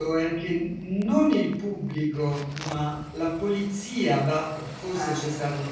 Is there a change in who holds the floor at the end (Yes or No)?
No